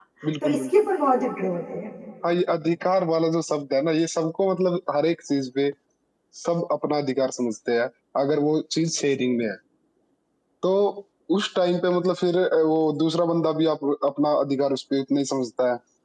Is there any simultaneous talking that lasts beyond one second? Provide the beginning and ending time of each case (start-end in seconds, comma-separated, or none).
none